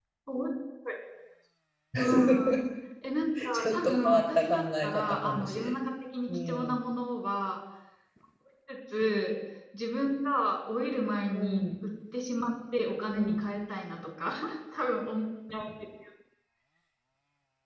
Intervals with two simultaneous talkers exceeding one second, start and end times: 3.5-5.7

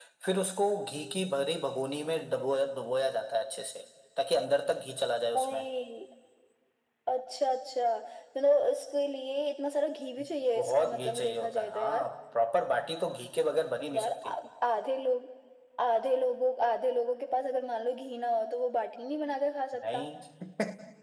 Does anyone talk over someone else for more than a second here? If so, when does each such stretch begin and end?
10.6-12.1

